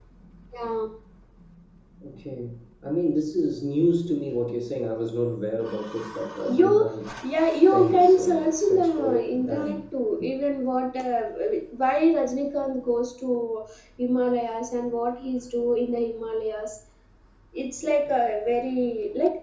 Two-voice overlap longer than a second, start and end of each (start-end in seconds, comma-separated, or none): 7.5-9.8